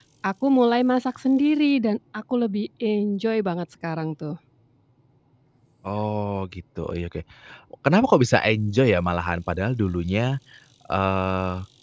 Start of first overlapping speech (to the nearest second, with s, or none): none